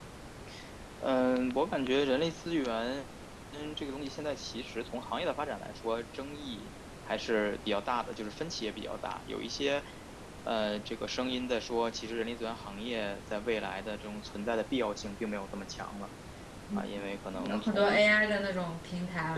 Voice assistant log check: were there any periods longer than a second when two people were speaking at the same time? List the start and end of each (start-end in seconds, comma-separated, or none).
16.8-18.0